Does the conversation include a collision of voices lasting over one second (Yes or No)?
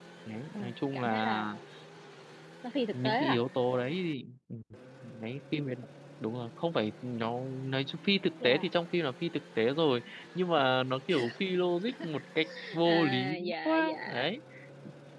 Yes